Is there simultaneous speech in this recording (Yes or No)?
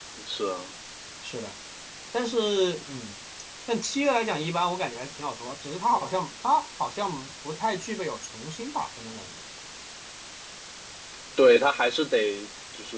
No